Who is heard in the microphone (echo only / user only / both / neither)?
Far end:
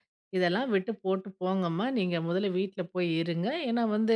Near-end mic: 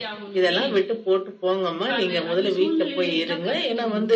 both